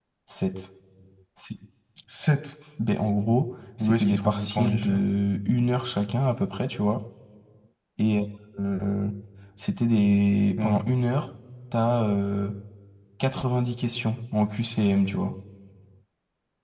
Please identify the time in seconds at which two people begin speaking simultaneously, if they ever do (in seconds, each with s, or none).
3.8 s